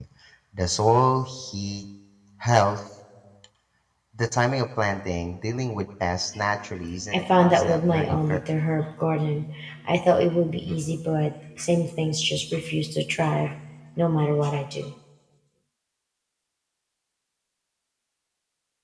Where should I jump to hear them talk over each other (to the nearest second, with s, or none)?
7 s